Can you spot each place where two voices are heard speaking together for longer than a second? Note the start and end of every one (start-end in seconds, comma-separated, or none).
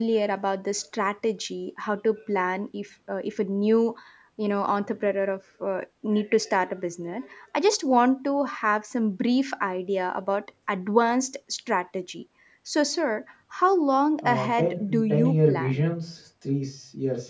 14.2-15.8